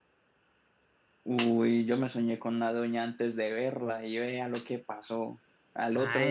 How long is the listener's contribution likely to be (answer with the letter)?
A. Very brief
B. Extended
B